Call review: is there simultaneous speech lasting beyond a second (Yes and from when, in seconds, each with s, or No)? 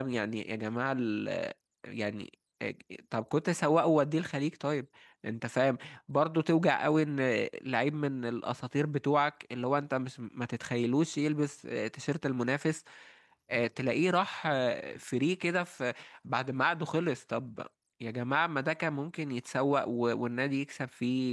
No